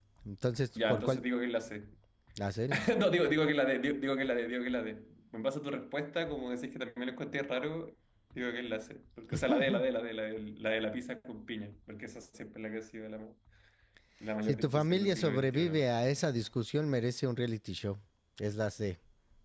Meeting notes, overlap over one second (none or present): present